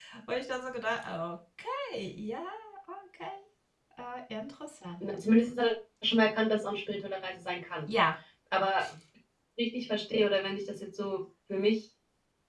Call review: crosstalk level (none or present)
none